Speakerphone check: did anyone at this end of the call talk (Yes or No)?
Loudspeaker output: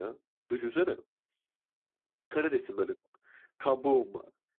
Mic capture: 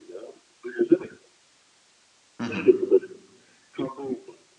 Yes